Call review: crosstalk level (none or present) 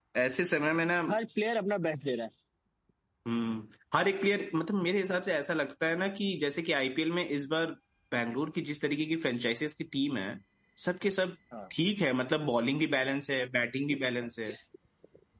none